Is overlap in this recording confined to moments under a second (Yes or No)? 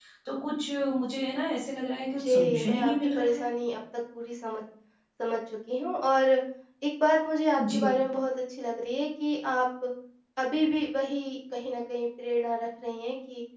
No